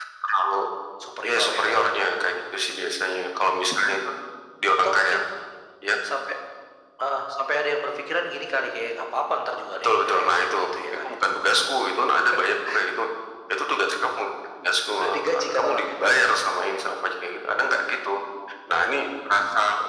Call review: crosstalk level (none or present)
present